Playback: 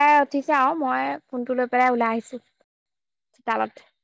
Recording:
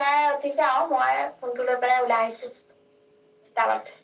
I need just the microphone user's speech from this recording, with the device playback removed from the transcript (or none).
none